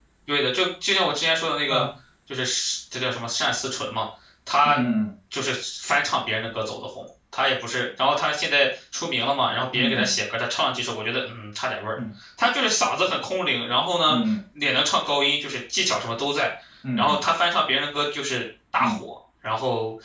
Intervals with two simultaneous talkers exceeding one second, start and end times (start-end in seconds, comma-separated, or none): none